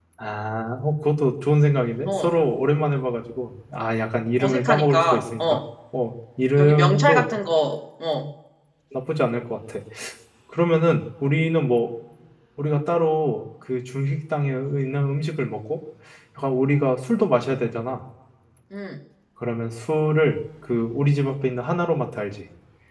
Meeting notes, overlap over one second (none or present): present